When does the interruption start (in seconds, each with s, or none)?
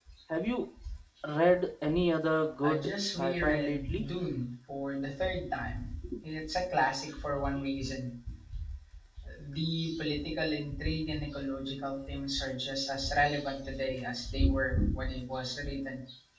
2.6 s